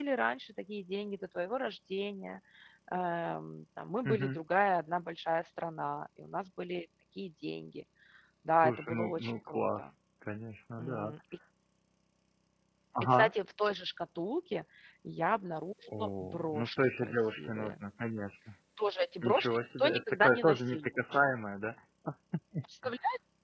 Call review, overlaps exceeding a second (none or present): present